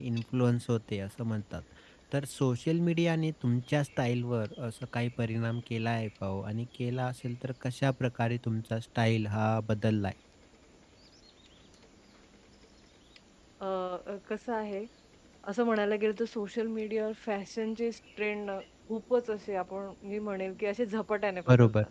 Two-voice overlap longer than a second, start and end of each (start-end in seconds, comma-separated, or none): none